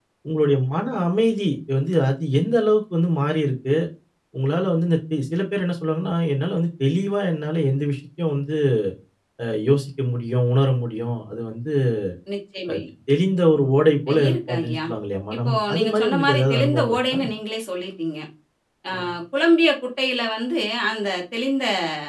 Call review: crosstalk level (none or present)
present